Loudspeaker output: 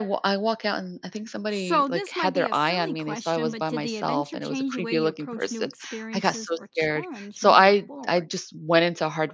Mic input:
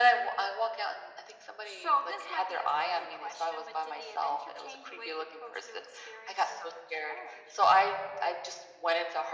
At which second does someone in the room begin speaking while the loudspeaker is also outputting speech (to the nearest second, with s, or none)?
none